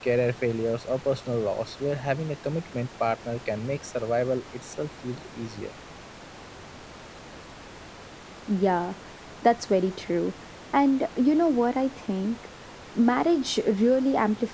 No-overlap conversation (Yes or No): Yes